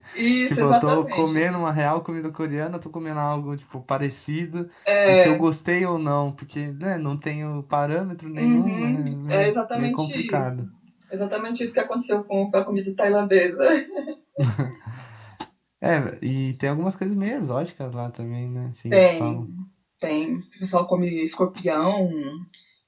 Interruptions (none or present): present